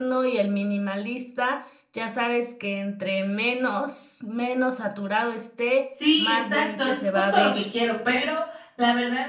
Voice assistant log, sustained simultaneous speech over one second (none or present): present